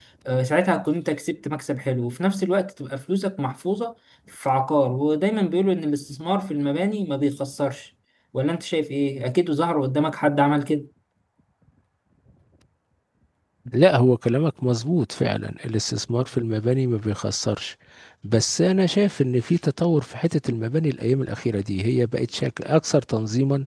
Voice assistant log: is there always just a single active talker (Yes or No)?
Yes